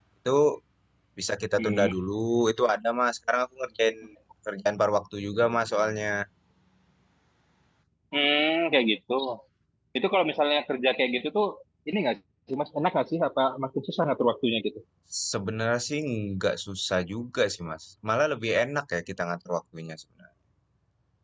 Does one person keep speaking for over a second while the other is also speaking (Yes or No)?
No